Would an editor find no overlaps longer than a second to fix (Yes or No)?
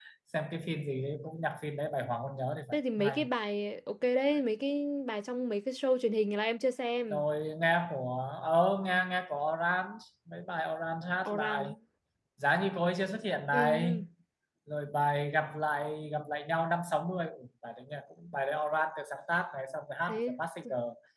Yes